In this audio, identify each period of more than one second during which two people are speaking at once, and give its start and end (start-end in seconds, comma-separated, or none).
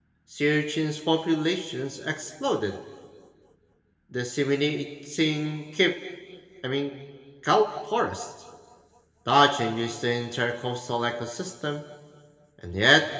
none